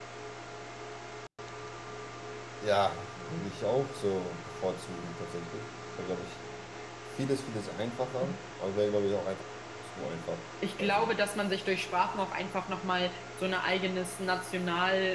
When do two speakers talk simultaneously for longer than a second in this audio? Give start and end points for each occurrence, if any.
none

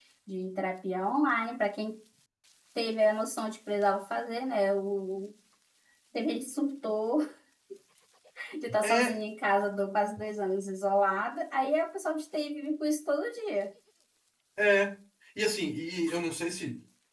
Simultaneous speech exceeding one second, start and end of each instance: none

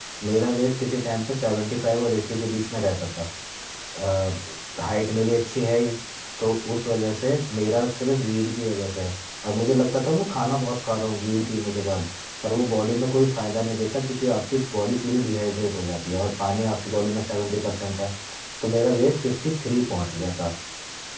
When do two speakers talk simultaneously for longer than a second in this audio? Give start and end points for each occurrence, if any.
none

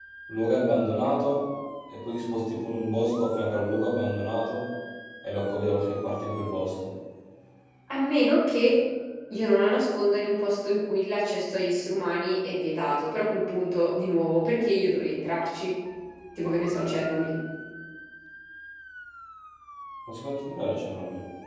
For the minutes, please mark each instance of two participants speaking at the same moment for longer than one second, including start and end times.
none

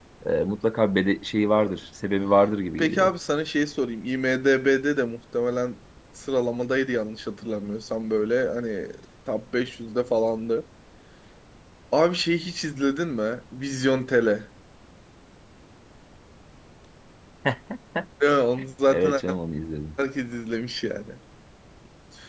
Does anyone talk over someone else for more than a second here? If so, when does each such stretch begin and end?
none

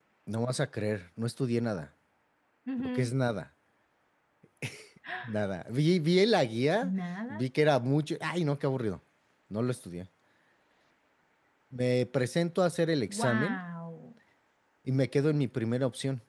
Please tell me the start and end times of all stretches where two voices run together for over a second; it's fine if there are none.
none

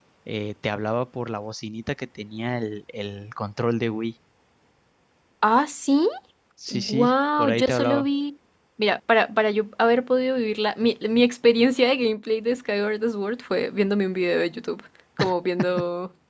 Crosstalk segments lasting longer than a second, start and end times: 6.7-8.1

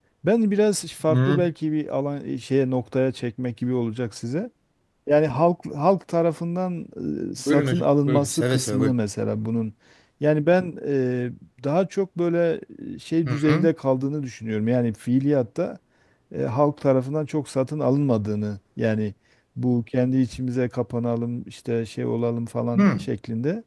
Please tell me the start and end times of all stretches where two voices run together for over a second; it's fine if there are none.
7.5-8.9

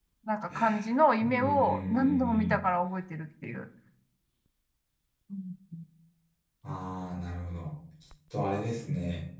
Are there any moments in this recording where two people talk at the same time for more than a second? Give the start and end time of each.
1.2-2.5

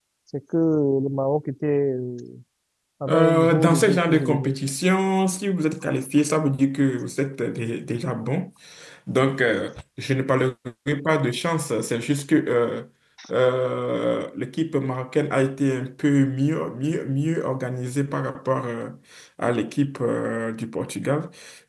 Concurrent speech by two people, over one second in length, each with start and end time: 3.1-4.5

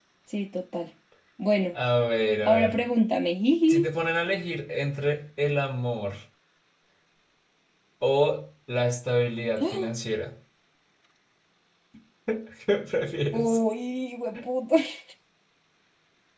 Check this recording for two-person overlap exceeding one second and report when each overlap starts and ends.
none

